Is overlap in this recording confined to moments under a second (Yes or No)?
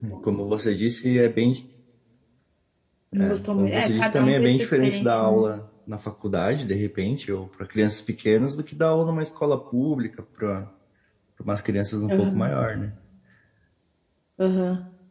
No